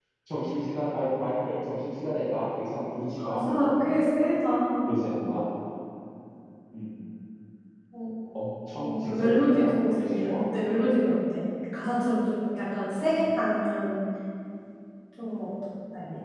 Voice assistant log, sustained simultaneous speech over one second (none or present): present